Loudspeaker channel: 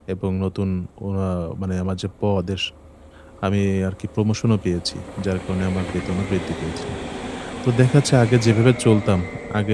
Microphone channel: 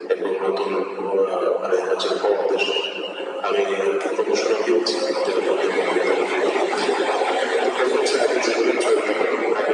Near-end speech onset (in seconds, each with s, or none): none